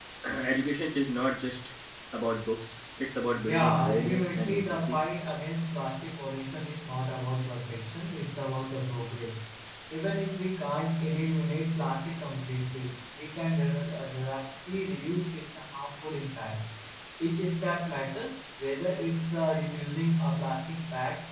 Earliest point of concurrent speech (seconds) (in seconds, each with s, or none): 3.5 s